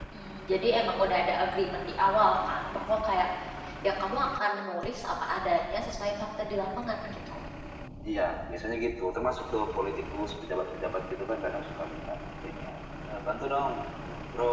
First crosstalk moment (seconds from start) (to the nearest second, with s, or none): none